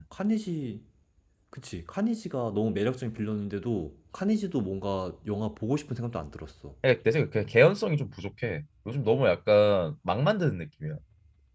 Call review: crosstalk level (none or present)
none